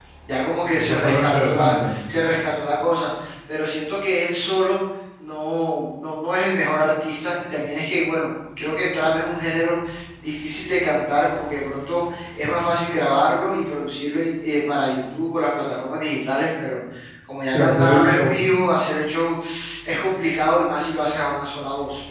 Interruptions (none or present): present